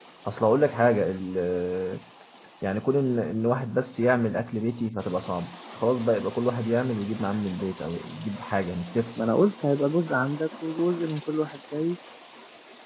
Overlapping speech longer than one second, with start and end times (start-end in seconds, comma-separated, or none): none